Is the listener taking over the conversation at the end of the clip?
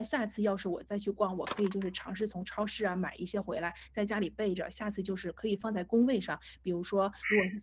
No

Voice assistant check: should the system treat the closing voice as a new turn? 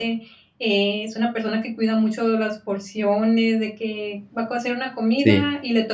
No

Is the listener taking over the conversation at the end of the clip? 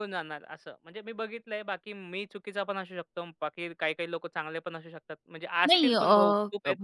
Yes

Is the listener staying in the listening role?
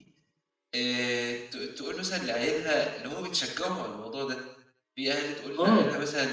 Yes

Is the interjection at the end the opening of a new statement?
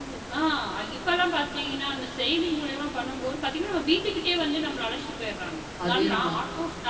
No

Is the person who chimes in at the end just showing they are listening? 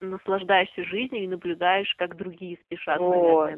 No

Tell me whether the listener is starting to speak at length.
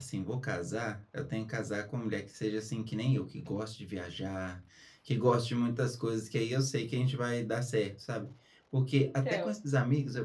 No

